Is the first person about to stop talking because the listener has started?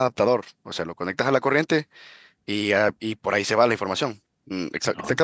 No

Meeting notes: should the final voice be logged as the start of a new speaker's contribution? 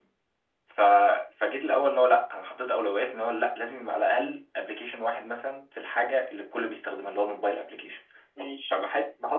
No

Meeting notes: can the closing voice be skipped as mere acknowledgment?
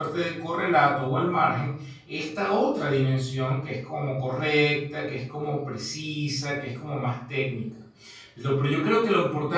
Yes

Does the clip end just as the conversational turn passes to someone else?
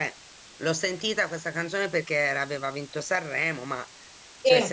No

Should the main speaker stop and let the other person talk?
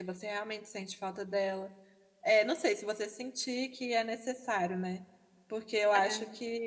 No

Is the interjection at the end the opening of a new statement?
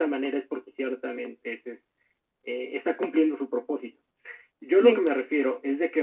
No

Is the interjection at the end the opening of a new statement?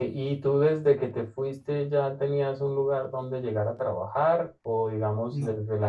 No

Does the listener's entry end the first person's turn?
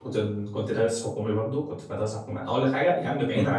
No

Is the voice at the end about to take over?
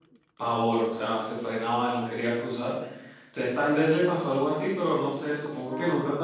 Yes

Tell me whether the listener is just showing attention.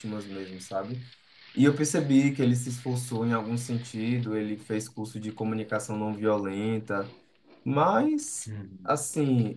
Yes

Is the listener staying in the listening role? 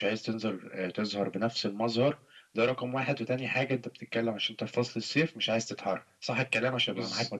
No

